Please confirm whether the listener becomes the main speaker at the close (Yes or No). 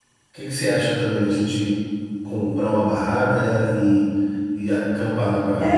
Yes